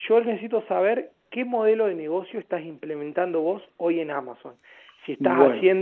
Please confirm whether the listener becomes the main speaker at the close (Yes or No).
No